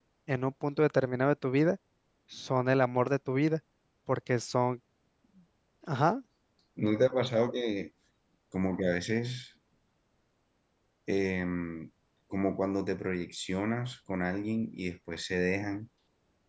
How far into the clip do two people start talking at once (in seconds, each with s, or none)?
none